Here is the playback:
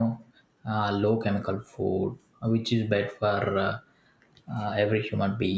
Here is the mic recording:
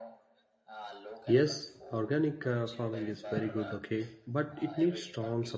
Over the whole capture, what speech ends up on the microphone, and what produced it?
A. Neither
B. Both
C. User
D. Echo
B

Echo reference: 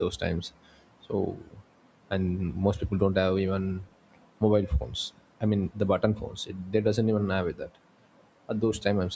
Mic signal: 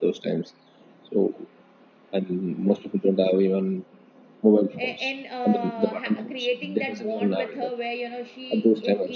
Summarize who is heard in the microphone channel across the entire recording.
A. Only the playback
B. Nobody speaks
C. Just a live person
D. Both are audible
D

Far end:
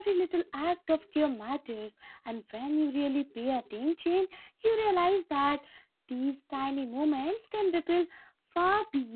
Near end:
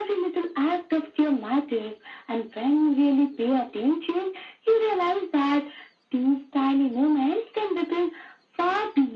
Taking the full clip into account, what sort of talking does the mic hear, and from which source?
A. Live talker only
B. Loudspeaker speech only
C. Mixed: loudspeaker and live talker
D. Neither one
B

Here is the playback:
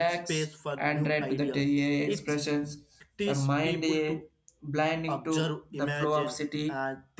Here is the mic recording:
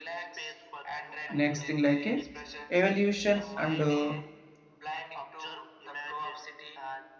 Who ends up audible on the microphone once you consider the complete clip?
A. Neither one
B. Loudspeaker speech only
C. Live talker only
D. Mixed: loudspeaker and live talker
D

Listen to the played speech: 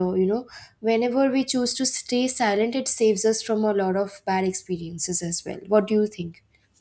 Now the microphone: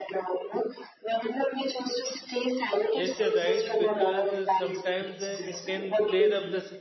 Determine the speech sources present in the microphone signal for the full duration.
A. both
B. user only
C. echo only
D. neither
A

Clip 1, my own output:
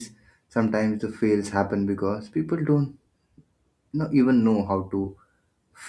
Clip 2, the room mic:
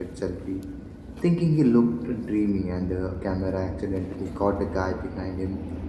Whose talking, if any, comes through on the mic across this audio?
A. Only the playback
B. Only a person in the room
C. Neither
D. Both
B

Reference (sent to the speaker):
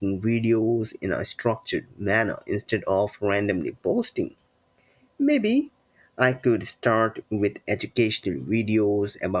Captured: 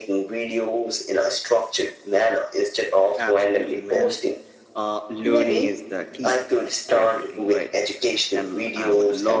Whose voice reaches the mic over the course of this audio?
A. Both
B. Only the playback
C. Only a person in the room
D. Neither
A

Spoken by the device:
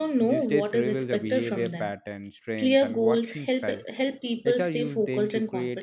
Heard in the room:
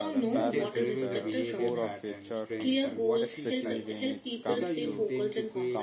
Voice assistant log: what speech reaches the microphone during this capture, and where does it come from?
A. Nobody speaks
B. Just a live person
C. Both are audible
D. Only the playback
C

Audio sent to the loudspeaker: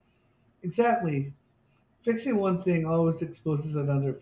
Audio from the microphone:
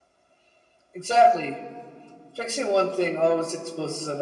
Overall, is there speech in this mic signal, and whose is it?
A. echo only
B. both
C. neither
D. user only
A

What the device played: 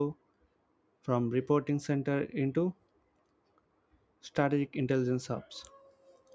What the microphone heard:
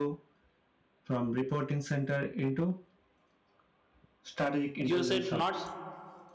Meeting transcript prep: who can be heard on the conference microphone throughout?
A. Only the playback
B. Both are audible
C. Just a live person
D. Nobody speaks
B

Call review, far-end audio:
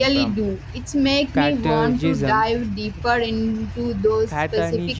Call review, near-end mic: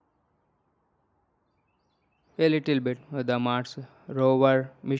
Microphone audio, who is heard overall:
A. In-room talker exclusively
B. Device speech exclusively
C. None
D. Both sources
A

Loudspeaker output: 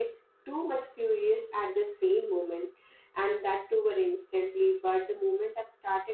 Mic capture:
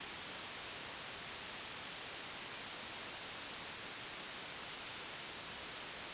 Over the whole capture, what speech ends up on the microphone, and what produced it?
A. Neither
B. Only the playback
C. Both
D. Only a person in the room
A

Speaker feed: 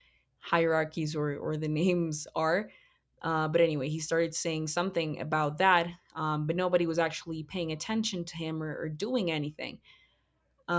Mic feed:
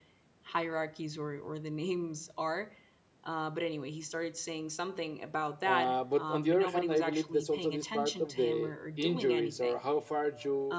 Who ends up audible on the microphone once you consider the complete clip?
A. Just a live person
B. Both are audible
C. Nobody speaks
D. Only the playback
B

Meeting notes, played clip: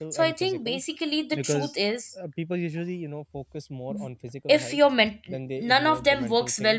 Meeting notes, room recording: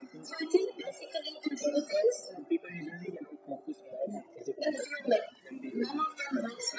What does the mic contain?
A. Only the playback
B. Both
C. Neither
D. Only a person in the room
A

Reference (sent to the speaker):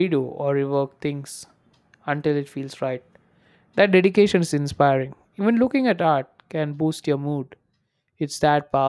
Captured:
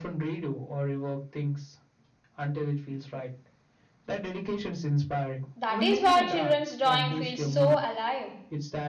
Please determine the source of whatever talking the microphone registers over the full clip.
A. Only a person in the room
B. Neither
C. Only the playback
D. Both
D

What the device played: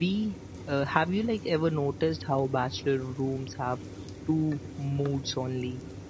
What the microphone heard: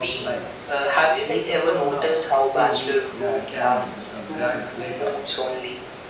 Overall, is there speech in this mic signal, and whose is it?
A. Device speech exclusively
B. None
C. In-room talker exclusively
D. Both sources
D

